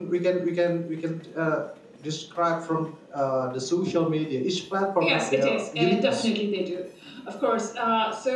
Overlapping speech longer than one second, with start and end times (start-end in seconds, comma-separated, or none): 5.0-6.3